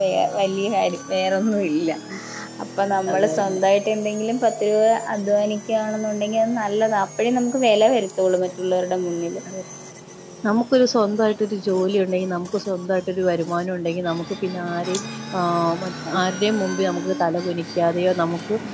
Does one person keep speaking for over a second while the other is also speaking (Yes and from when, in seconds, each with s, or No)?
No